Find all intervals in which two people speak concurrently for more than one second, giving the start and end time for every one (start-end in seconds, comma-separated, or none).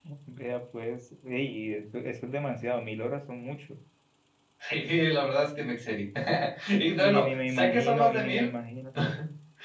7.0-8.5